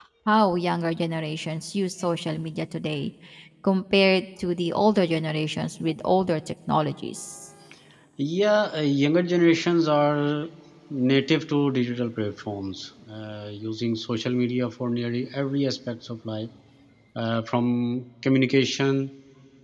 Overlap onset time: none

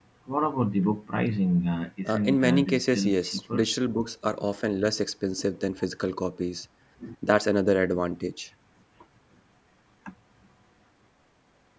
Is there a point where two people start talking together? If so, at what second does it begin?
2 s

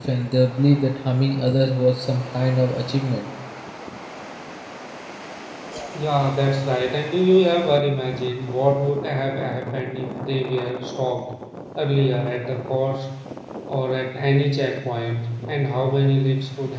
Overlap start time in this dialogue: none

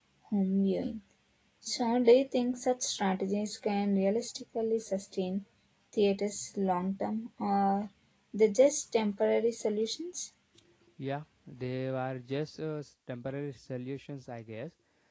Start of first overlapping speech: none

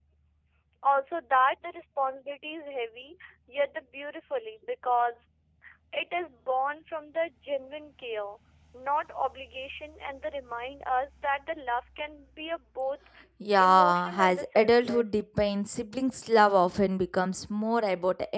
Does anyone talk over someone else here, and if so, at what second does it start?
14 s

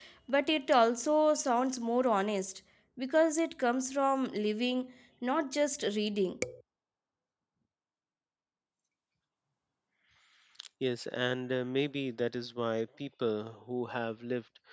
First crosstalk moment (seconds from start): none

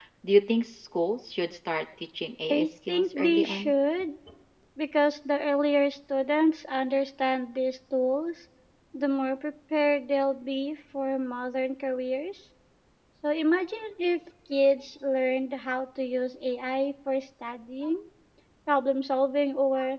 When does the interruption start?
3 s

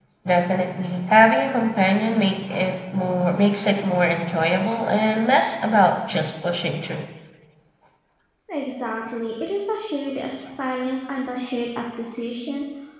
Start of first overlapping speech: none

